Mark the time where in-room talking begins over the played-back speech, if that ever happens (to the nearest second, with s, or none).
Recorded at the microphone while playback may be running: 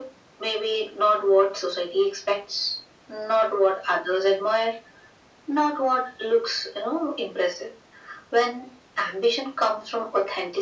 none